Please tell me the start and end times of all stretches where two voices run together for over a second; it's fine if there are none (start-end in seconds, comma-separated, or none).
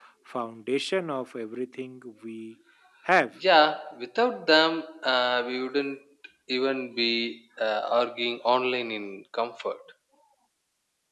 none